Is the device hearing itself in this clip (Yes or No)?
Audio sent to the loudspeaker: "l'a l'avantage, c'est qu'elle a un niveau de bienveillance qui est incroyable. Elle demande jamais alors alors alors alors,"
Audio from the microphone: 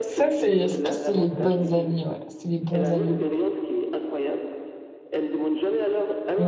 Yes